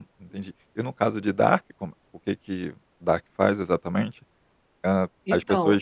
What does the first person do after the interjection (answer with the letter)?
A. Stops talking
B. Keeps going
B